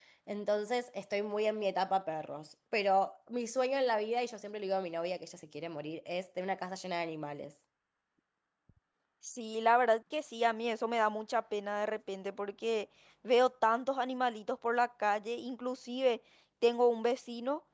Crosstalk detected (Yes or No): No